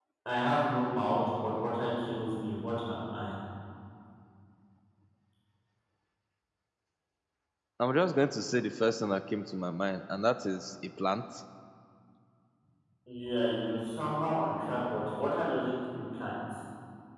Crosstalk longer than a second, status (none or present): none